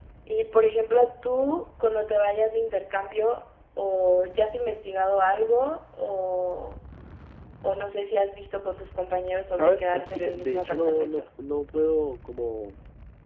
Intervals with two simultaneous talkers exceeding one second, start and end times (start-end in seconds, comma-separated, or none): 9.5-11.2